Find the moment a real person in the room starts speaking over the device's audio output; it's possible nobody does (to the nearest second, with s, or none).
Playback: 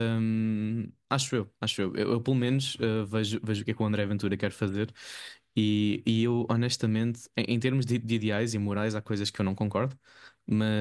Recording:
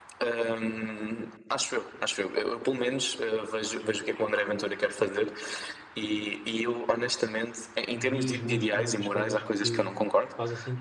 8 s